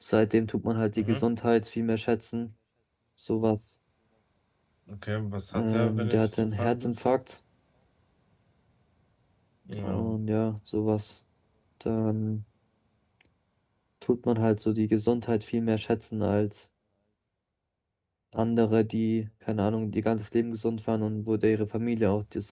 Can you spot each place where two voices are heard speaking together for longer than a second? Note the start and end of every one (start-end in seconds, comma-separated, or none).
5.5-7.2